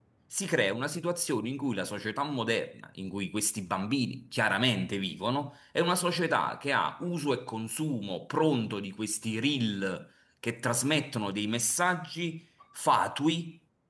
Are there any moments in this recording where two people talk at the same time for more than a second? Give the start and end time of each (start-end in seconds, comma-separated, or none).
none